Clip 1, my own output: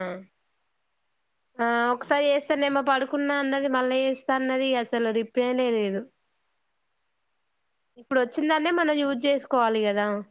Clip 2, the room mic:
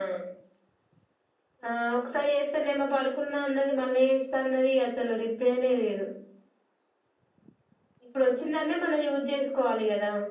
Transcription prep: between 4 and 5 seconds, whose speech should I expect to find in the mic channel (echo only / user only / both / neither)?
echo only